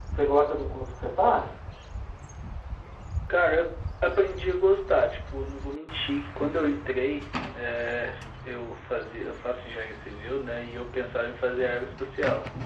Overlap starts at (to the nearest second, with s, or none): none